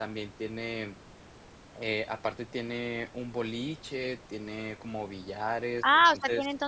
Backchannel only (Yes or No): No